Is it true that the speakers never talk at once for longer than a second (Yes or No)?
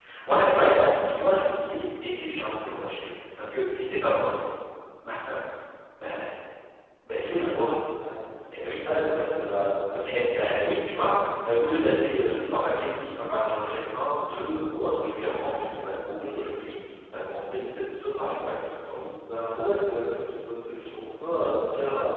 Yes